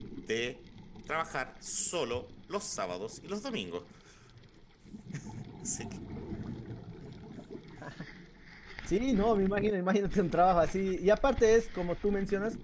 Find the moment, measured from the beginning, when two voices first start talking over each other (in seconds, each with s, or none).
none